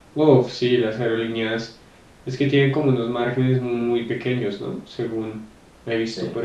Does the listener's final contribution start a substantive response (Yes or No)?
Yes